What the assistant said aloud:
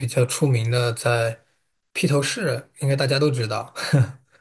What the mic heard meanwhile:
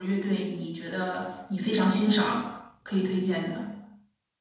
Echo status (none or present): none